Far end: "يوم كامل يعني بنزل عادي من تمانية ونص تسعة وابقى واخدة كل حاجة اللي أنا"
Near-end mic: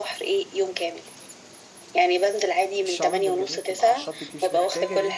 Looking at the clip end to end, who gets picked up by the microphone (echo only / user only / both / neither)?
both